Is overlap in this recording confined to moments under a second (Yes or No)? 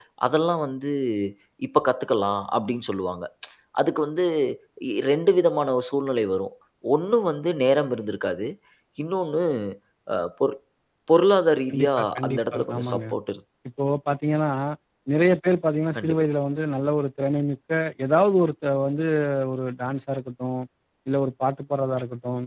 No